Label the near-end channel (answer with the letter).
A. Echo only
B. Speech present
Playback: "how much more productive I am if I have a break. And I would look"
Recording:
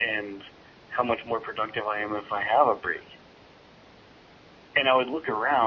A